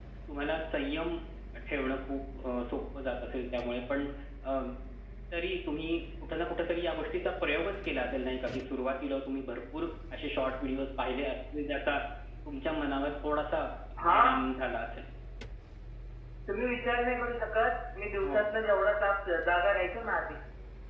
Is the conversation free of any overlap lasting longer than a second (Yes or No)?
Yes